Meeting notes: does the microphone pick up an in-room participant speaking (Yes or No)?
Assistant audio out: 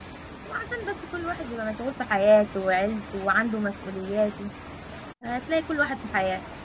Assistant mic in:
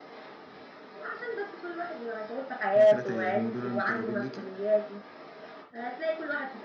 Yes